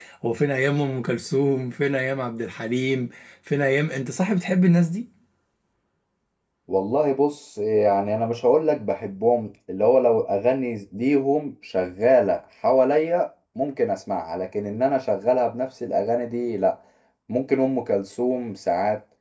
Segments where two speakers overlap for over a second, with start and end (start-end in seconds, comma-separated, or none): none